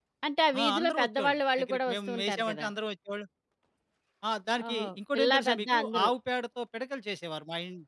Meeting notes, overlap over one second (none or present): present